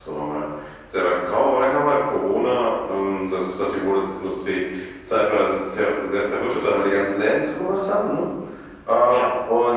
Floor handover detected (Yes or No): No